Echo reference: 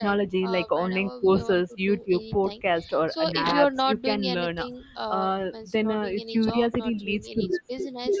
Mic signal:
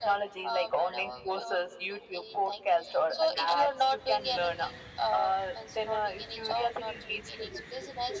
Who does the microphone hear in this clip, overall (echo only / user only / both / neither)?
echo only